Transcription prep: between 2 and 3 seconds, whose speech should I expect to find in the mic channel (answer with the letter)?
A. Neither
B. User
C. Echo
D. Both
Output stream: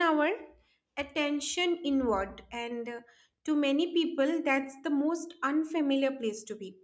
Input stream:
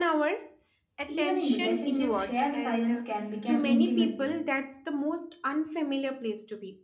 D